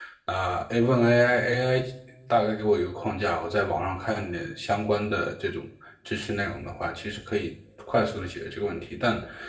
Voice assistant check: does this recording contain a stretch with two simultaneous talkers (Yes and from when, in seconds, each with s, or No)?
No